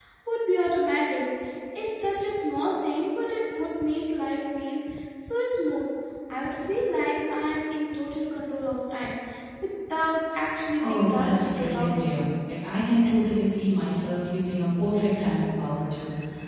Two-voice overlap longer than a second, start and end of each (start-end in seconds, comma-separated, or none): 10.8-12.2